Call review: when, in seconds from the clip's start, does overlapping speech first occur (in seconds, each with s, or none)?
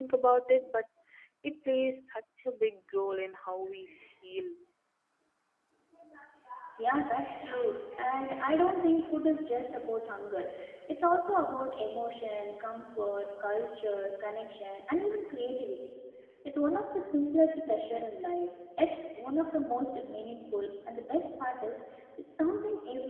none